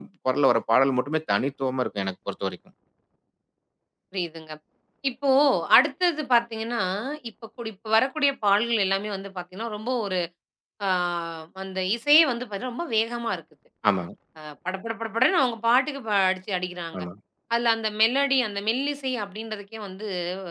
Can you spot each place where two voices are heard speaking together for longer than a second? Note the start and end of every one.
none

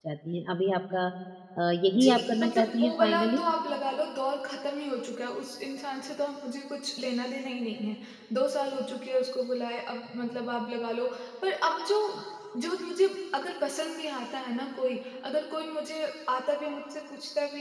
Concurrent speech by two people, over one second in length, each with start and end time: 2.0-3.4

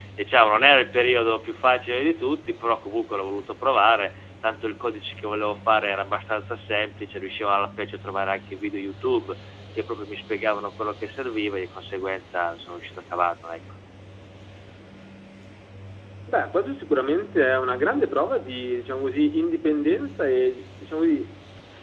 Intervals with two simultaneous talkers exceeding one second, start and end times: none

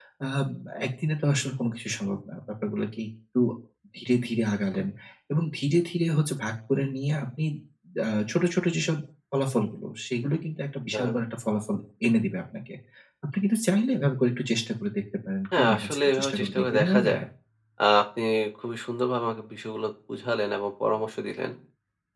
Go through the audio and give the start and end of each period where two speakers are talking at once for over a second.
15.6-17.1

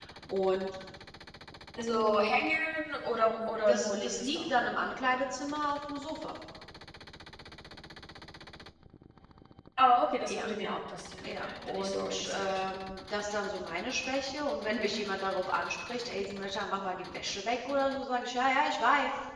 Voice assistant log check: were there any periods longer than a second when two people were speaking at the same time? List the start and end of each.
3.7-5.2, 11.2-12.5

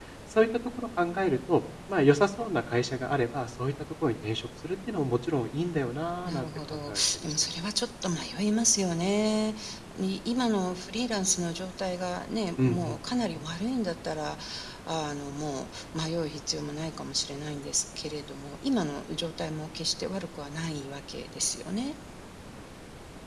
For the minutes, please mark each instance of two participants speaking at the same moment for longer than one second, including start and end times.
6.2-7.5

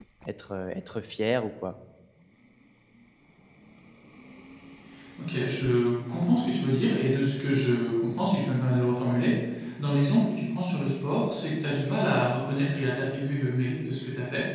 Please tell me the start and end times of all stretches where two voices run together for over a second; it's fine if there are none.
none

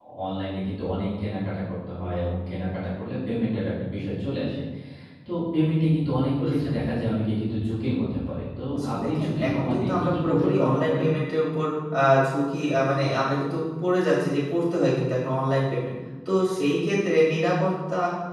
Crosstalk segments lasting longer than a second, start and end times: 8.8-11.1

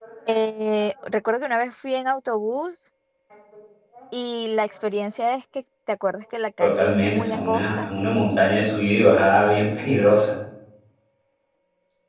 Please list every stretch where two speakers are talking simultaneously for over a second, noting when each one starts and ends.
6.6-7.9

